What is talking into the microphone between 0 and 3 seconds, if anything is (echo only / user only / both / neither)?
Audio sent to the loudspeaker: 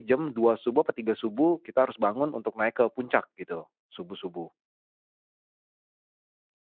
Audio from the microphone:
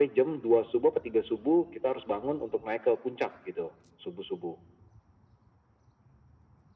echo only